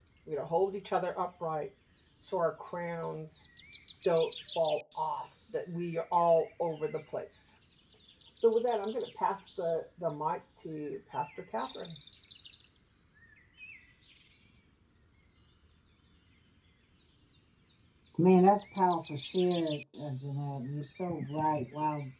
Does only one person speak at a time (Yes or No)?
Yes